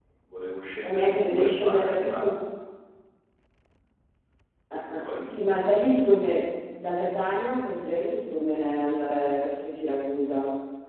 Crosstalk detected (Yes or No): Yes